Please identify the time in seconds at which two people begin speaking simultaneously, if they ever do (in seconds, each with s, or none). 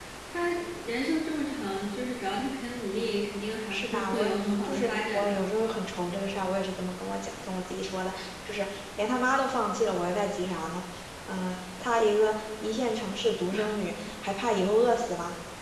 3.7 s